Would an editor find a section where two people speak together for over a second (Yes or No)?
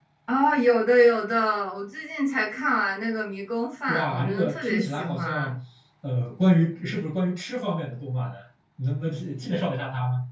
Yes